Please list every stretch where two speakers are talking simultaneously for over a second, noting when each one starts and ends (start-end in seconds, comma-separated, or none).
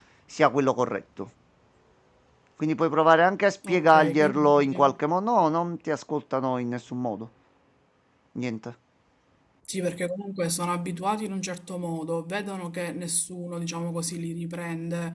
3.7-5.0